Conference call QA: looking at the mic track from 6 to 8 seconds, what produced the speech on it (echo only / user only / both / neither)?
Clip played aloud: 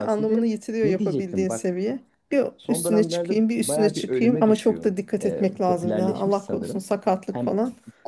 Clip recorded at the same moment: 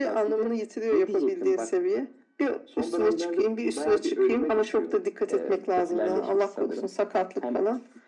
echo only